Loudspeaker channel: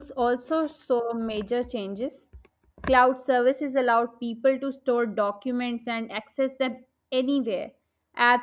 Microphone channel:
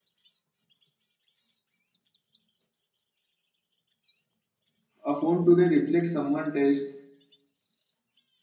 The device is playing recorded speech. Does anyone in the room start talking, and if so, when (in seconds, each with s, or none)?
5.0 s